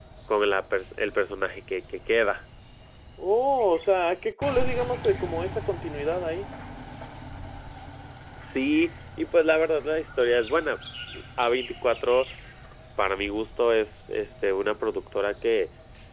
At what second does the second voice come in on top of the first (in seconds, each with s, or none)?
none